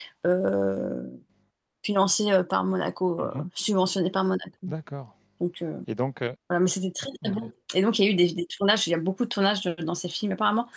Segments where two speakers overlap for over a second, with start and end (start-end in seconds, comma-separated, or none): none